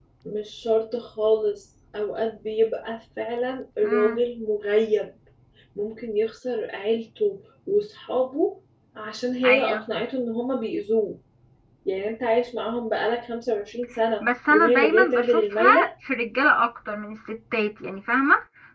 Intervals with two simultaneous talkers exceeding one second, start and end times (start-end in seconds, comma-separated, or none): 14.2-15.8